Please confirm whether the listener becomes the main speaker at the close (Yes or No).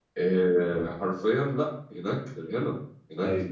No